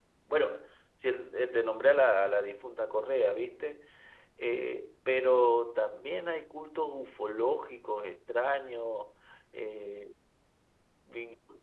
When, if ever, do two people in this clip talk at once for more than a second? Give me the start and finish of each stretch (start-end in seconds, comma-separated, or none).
none